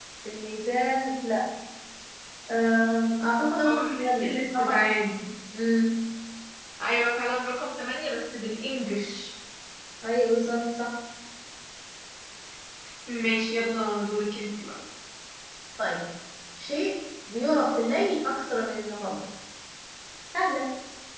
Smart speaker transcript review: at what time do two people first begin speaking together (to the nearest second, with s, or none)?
4 s